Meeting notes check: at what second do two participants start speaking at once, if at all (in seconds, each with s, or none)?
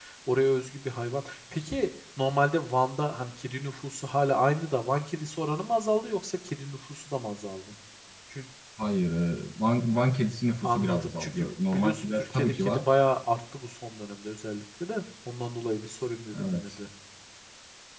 10.6 s